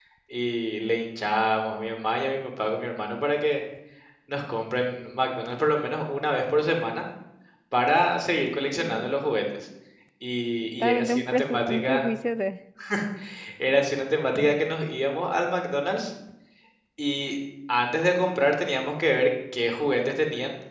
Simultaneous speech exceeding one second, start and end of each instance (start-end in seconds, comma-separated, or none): 10.6-12.0